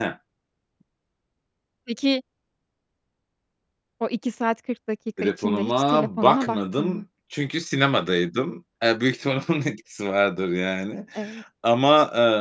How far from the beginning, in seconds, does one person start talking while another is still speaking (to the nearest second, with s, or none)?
5 s